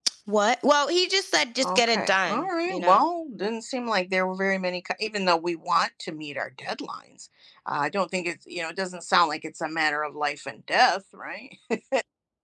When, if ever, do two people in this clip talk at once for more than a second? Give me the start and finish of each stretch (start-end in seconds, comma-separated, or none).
1.6-3.0